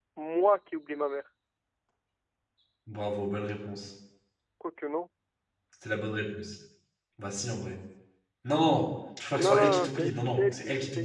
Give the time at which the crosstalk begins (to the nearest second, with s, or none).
9 s